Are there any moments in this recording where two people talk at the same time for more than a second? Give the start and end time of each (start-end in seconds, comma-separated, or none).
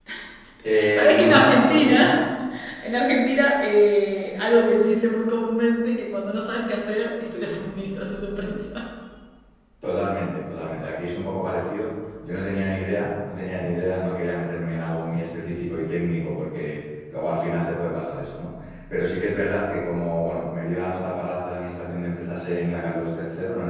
0.9-2.2